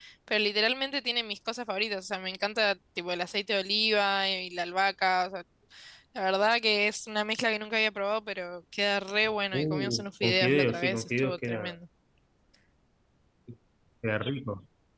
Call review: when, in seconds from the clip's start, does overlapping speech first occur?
10 s

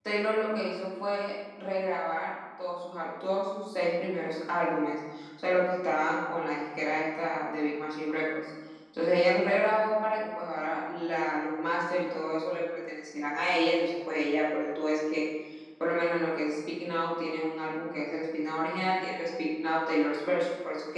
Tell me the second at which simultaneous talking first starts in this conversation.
none

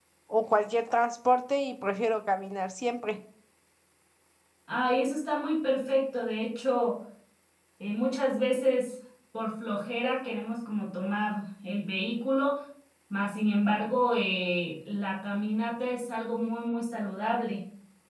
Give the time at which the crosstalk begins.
none

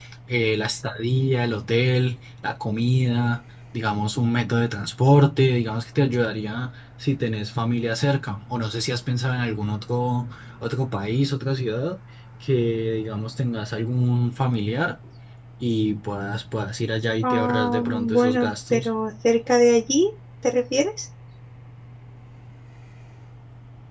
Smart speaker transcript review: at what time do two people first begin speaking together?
17 s

